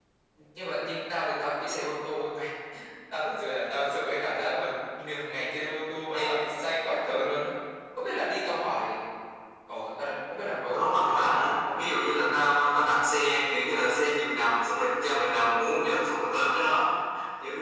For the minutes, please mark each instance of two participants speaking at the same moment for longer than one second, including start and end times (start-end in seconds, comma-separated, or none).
10.7-11.9